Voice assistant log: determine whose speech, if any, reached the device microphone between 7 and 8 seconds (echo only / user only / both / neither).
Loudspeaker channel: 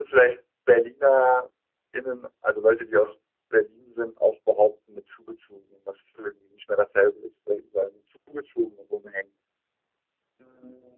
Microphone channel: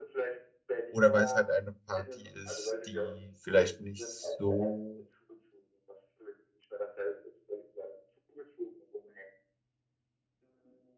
echo only